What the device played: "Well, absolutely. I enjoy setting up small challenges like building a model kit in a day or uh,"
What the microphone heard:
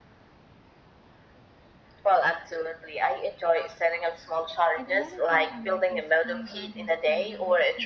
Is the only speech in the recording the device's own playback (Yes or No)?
No